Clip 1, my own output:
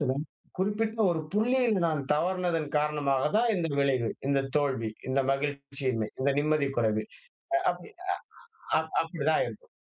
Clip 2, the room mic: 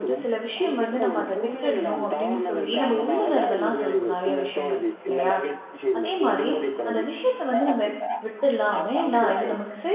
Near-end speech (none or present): present